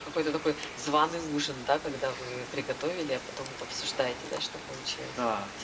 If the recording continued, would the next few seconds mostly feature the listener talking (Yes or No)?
Yes